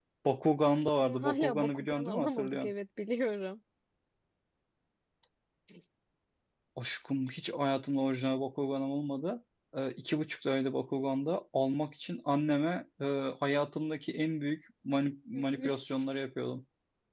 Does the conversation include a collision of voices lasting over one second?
Yes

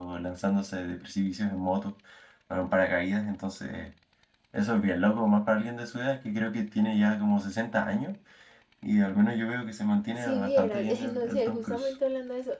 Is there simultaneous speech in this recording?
Yes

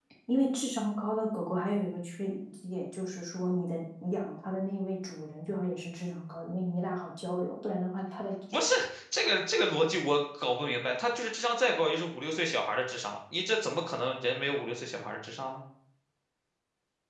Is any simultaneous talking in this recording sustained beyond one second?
No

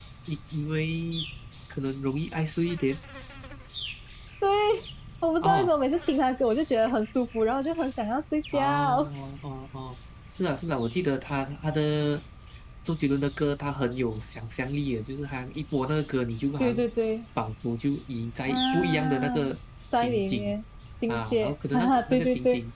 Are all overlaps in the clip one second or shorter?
No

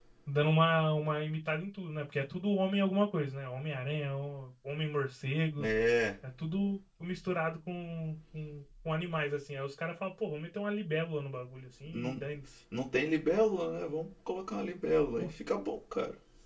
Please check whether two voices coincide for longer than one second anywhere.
No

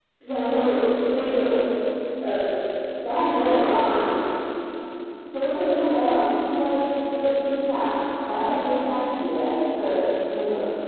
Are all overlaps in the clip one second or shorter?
Yes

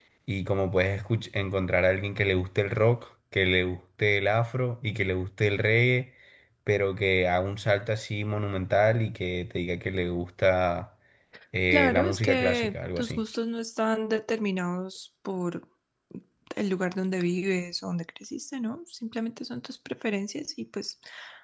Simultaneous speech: Yes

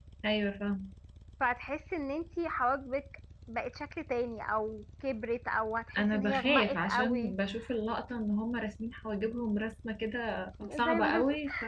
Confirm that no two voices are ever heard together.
No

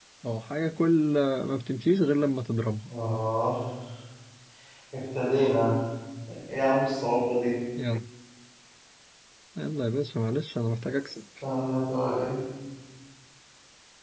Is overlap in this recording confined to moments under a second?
Yes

